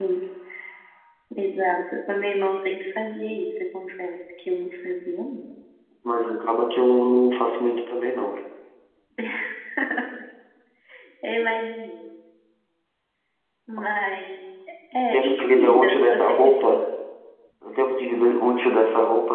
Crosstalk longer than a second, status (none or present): present